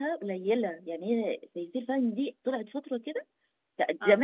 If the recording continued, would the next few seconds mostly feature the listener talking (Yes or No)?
No